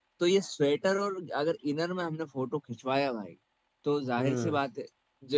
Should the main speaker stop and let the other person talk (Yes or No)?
No